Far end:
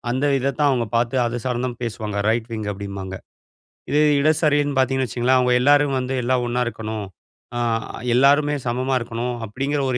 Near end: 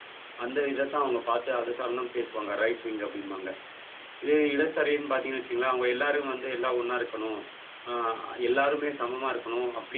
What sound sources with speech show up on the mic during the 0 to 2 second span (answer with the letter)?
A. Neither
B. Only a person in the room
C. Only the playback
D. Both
C